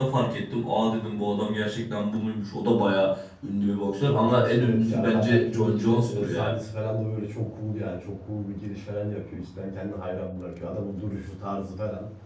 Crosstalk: present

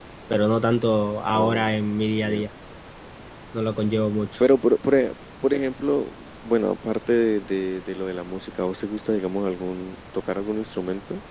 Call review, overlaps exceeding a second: none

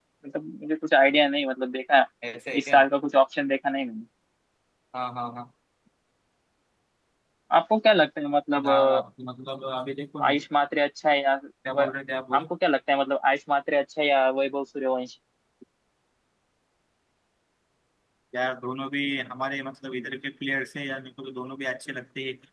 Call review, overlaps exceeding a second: none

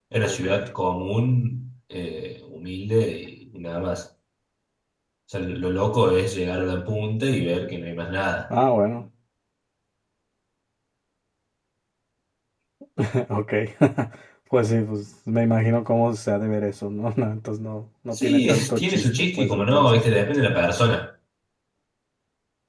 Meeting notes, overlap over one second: present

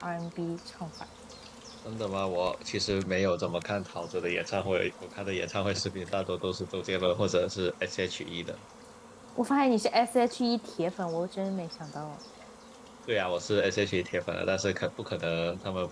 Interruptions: none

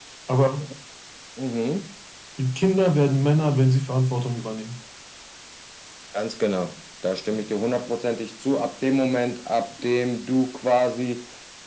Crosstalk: none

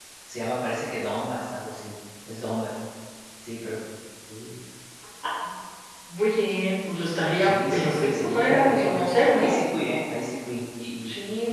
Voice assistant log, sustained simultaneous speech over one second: present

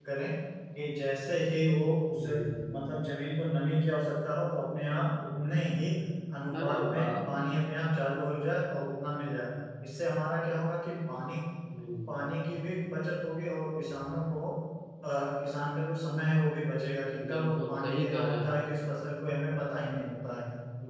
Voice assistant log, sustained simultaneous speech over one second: present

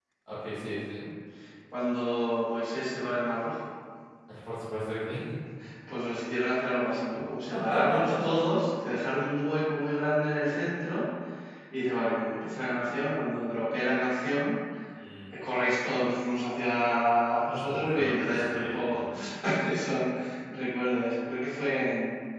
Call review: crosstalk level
present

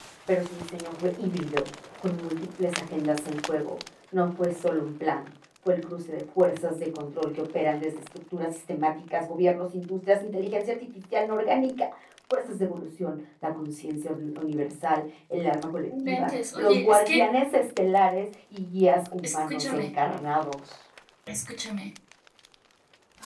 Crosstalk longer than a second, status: present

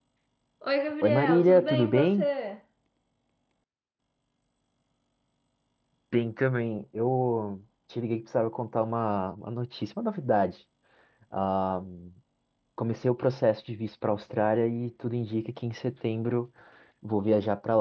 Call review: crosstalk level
present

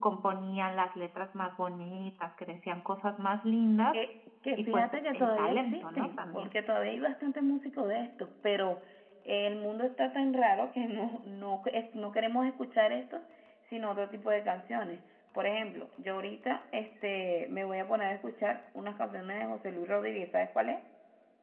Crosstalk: present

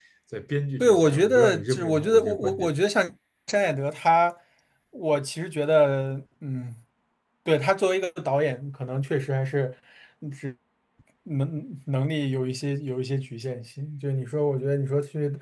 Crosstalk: present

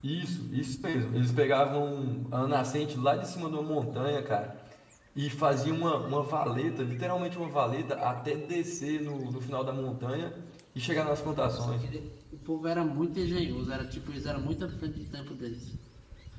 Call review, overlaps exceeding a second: none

